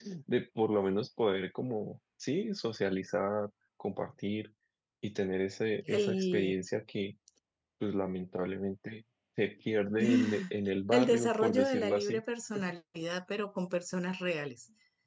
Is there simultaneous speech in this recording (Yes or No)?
Yes